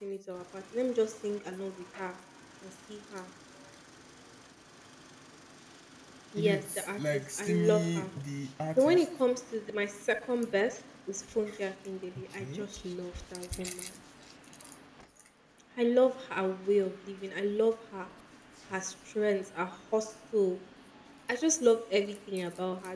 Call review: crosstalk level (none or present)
present